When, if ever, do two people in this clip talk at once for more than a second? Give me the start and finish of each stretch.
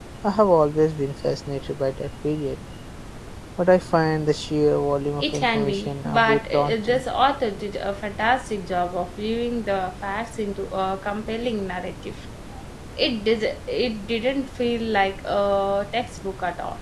5.2-7.0

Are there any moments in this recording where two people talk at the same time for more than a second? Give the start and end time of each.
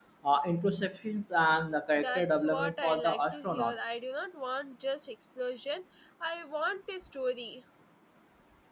2.0-3.8

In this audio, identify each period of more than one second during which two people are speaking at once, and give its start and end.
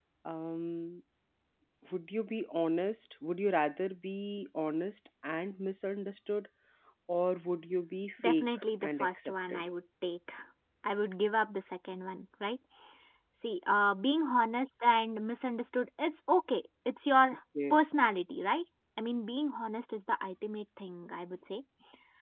8.2-9.6

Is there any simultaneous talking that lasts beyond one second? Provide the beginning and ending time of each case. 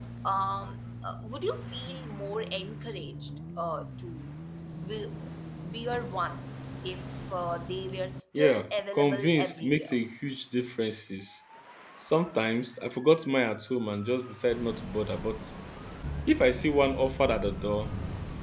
8.4-10.0

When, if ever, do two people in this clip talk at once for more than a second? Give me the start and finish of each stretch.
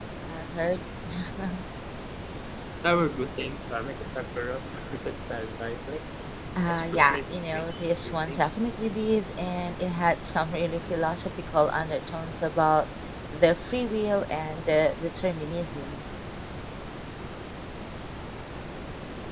6.7-8.4

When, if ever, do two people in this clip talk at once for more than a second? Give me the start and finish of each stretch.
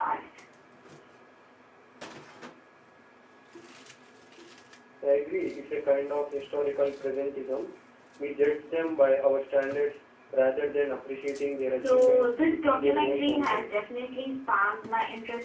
11.8-13.8

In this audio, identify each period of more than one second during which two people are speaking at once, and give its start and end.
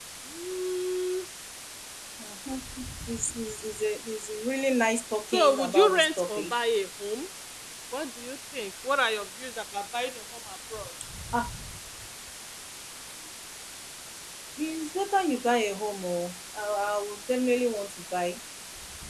5.3-6.5

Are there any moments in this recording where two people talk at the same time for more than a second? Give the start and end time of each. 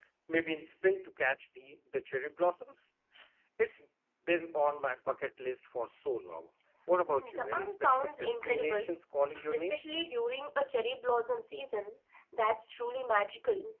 7.3-8.9

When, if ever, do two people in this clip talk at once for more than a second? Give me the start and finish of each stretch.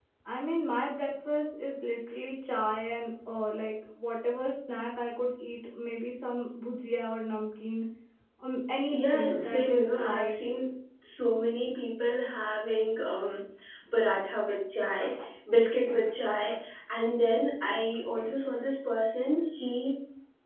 8.9-10.4

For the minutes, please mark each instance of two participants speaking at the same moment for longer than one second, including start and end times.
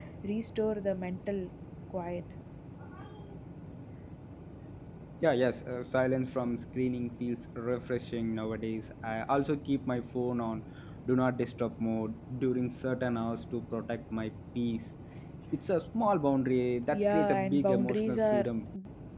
16.9-18.5

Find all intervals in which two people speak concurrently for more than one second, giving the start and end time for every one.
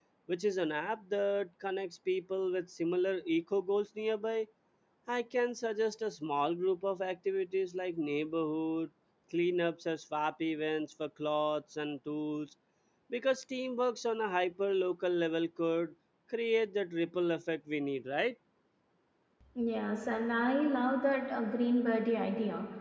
none

